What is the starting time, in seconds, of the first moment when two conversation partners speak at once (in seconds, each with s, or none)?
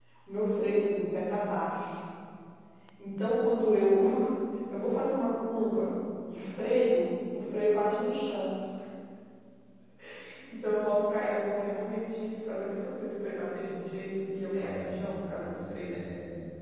14.5 s